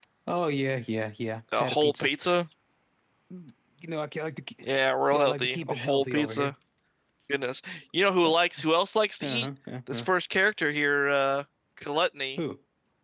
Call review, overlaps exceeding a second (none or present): present